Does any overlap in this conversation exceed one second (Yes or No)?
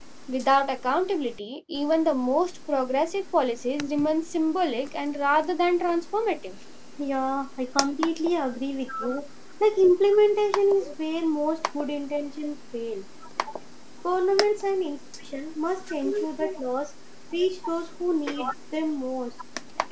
No